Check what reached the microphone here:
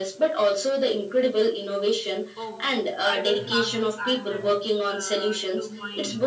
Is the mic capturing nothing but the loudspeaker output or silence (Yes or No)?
No